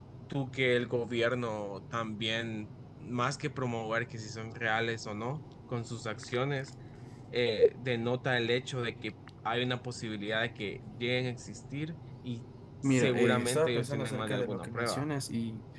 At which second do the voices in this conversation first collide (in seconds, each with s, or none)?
12.8 s